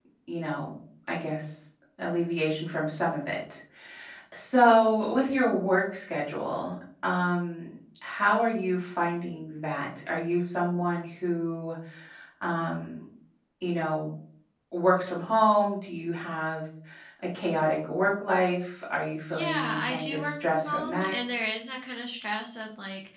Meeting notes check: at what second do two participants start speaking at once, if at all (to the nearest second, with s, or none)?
19 s